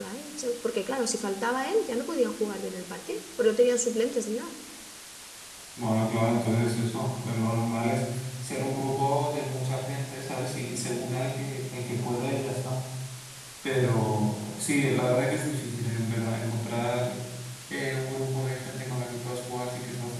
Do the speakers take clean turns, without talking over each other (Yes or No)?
Yes